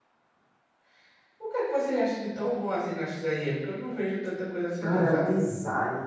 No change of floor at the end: No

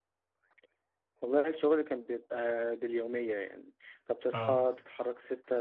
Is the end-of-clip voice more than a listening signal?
No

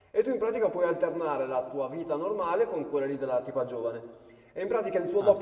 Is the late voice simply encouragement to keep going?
Yes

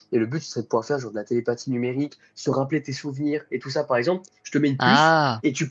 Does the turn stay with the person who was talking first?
Yes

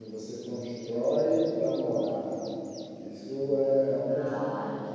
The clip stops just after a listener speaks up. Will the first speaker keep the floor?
Yes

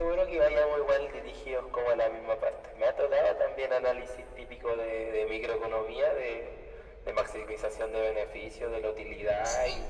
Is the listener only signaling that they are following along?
Yes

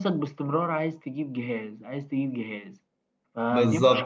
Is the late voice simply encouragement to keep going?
No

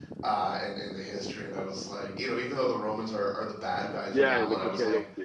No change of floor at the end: No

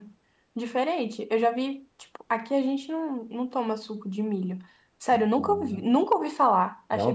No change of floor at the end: No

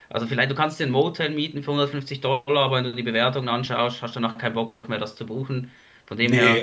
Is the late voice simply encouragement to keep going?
No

